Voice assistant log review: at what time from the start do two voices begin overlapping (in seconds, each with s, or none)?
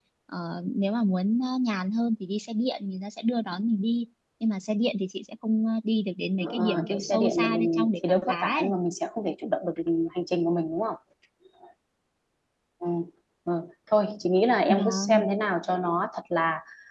6.6 s